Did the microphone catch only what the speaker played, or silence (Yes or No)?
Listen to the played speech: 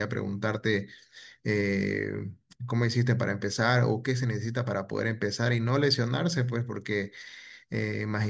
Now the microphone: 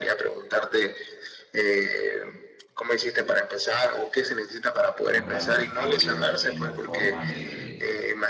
No